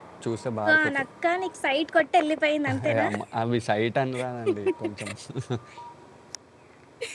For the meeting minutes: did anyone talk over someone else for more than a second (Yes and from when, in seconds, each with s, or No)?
No